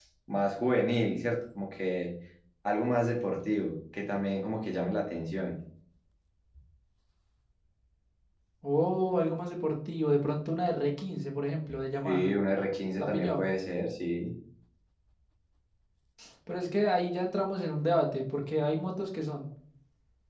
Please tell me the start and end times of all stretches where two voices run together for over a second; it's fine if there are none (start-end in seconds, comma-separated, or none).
none